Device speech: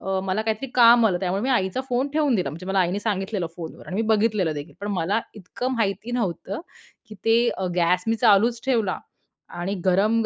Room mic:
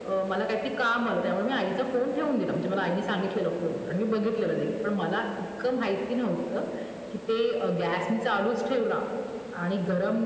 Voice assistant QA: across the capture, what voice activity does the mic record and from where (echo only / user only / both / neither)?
echo only